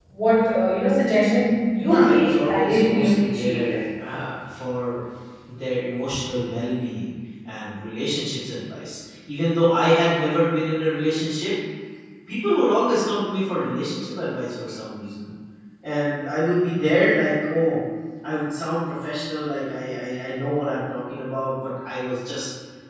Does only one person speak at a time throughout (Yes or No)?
No